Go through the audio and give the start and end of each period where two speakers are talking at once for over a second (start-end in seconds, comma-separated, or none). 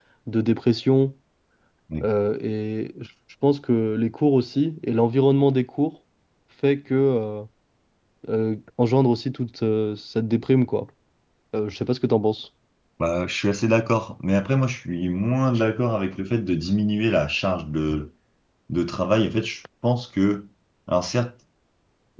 none